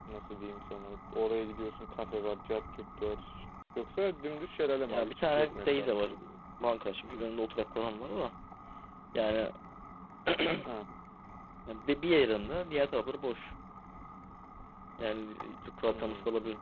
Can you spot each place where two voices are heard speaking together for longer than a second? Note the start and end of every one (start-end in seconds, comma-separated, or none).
4.9-6.1